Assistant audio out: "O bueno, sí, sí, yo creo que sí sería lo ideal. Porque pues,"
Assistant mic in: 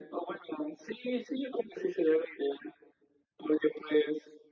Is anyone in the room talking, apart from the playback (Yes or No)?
No